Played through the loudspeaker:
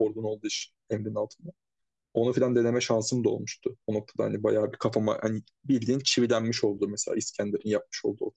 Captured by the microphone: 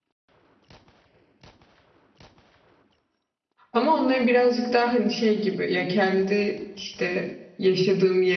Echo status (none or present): none